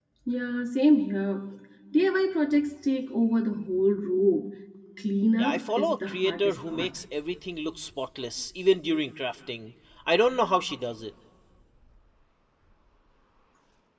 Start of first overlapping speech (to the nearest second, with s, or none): 5 s